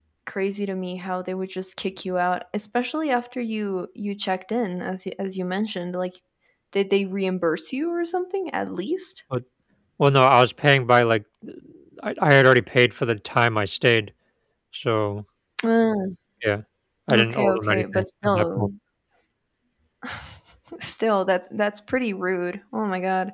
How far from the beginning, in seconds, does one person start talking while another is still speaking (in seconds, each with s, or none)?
17.1 s